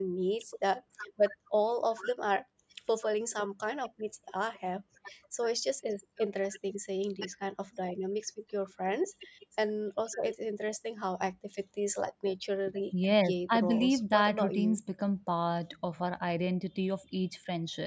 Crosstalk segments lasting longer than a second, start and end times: 13.0-14.8

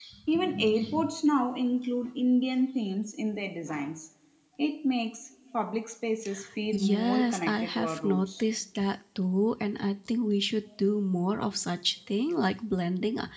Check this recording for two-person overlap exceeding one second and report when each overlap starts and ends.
6.7-8.4

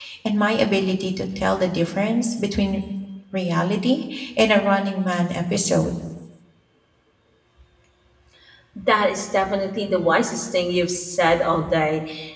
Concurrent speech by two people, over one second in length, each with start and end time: none

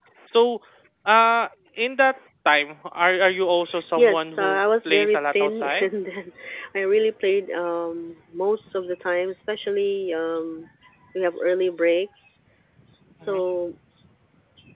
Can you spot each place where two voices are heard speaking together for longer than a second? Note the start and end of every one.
3.9-5.9

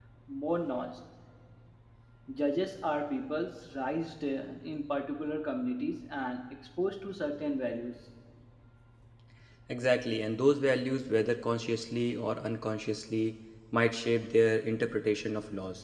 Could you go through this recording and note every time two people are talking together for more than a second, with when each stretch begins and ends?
none

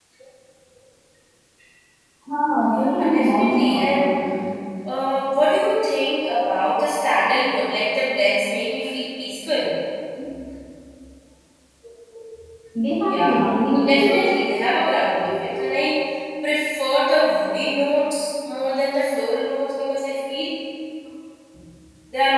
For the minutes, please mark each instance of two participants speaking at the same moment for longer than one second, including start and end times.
2.7-4.0

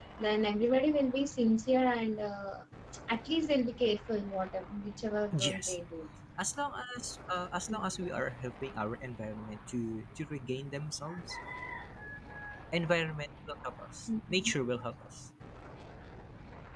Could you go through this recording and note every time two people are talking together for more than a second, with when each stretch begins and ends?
none

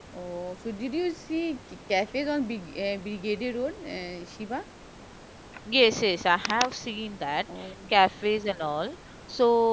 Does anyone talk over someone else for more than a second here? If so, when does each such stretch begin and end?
none

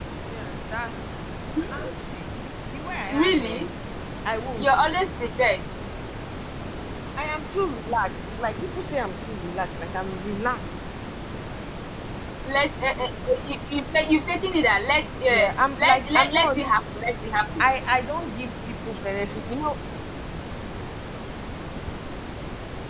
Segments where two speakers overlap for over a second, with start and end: 15.3-16.5

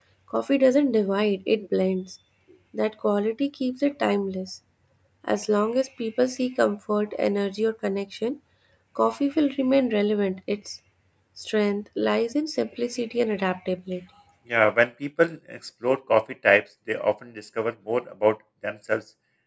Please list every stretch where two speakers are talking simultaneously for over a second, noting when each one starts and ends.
none

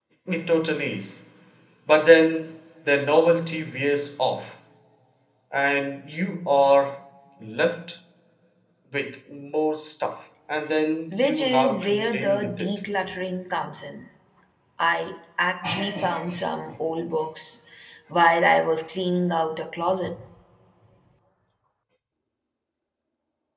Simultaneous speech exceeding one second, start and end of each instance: 11.1-12.8

